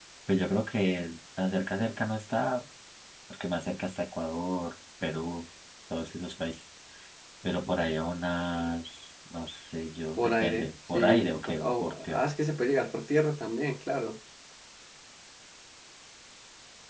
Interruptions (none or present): present